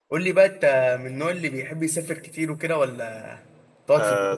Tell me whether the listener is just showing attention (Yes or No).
No